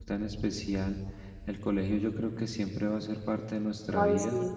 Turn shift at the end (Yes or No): Yes